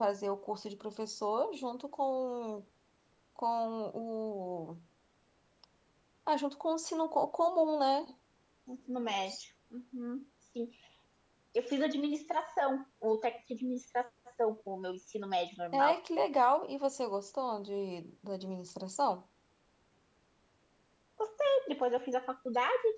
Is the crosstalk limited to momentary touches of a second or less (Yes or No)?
Yes